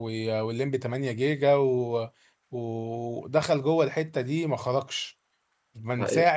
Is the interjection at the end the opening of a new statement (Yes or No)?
No